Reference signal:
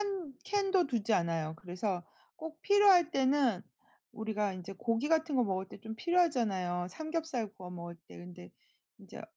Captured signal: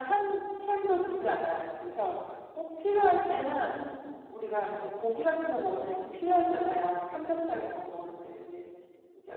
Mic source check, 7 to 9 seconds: echo only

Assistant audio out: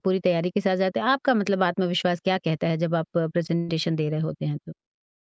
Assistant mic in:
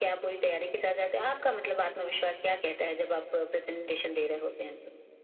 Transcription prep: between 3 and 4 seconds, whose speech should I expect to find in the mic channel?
echo only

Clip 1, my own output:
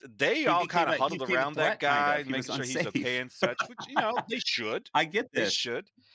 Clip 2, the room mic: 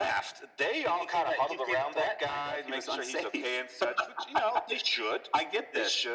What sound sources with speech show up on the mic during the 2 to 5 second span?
echo only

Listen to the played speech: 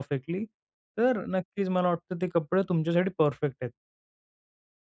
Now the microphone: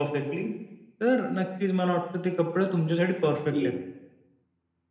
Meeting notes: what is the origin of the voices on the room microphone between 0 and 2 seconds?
echo only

